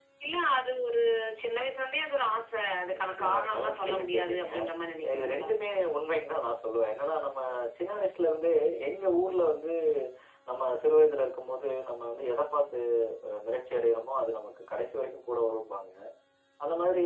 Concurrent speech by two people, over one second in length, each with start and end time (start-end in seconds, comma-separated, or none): 3.0-4.5